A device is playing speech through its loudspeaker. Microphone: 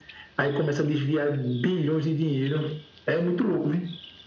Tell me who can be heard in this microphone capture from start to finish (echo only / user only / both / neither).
echo only